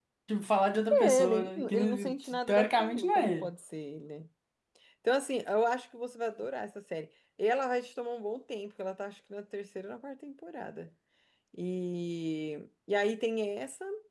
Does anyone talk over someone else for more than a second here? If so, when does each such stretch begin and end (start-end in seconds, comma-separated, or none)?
0.9-3.5